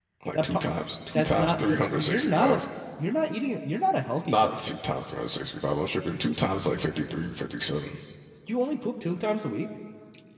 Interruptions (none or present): present